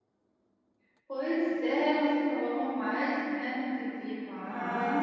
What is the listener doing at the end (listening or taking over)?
taking over